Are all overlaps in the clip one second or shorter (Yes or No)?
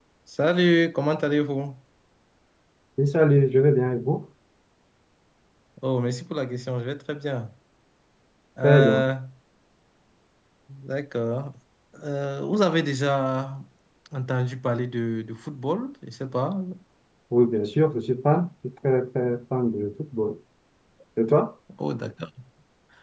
Yes